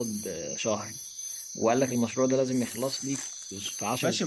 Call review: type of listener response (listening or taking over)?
taking over